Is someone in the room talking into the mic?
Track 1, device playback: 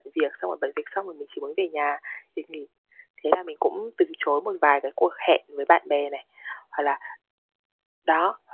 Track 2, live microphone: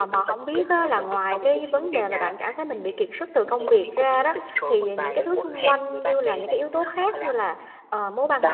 Yes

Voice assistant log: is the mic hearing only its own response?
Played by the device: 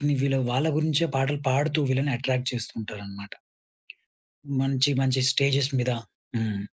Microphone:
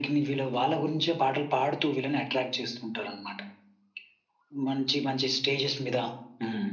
Yes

